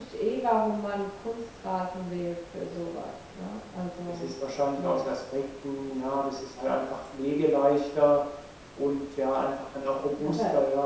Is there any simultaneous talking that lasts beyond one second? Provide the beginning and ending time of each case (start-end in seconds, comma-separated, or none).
none